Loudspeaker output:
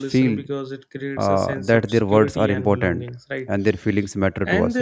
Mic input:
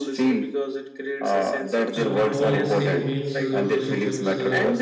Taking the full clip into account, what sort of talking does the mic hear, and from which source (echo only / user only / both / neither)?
both